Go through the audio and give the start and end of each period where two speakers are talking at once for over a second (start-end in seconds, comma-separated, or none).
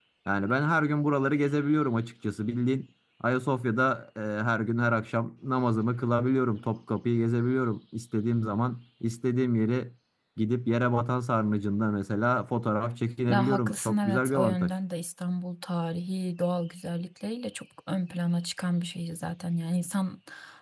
13.3-14.7